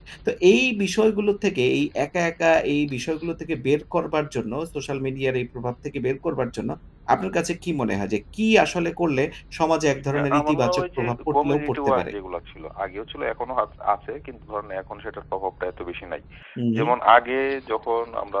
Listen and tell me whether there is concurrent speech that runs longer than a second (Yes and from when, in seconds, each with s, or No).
Yes, from 10.1 s